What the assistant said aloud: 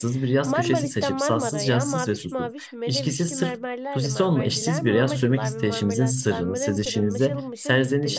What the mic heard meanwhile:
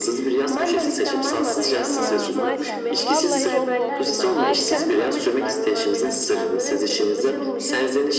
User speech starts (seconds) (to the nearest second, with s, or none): 2 s